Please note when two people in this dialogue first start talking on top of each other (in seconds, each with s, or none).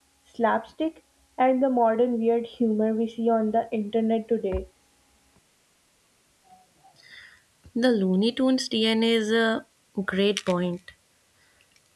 none